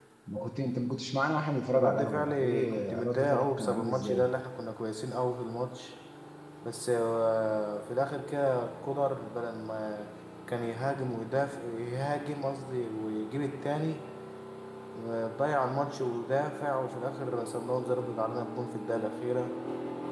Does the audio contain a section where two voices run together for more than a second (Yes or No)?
Yes